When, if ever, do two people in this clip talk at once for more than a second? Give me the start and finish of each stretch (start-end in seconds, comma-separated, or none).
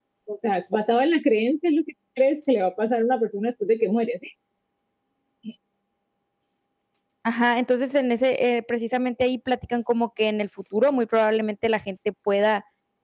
none